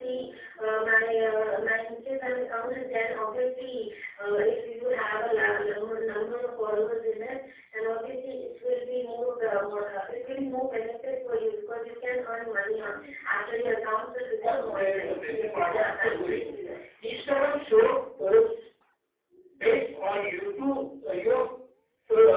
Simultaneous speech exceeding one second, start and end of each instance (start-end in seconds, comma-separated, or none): 14.4-16.6